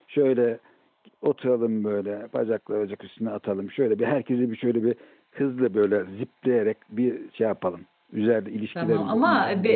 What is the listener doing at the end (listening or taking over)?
taking over